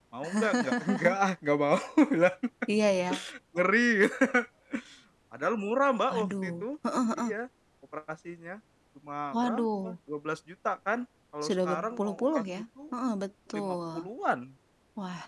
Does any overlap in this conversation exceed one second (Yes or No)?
Yes